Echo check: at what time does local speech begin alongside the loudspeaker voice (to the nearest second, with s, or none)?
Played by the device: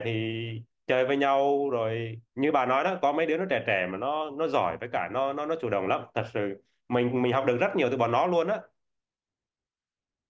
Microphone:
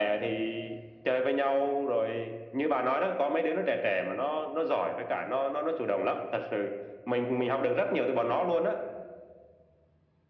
none